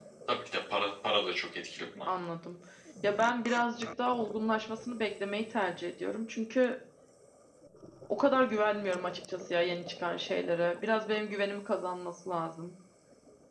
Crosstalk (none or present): none